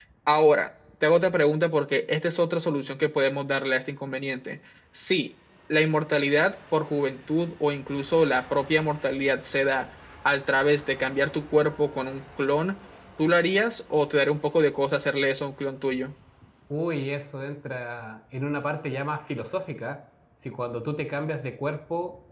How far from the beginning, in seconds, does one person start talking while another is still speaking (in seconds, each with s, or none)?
none